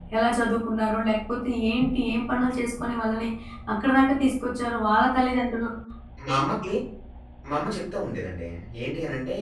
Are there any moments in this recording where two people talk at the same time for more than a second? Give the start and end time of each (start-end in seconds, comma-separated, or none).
none